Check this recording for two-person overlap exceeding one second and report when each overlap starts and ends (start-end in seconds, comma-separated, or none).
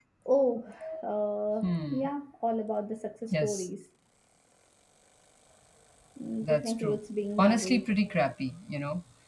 none